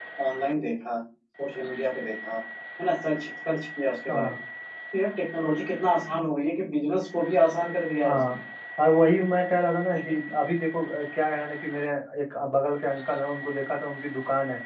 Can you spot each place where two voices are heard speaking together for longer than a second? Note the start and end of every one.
none

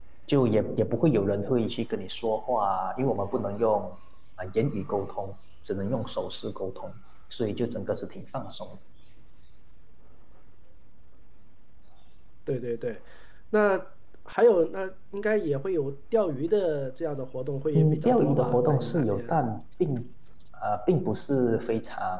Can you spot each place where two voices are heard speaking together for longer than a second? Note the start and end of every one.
17.7-19.4

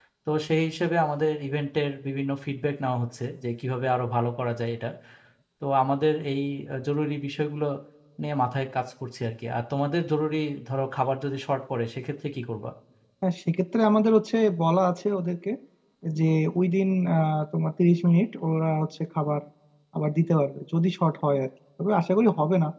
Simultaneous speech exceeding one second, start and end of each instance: none

